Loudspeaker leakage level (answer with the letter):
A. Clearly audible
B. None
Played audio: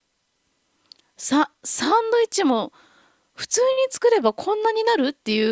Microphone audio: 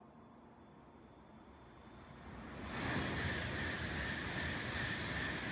B